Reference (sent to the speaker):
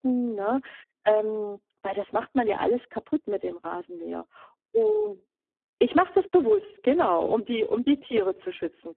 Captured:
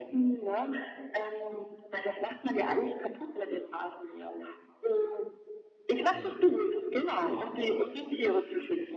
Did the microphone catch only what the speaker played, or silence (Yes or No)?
No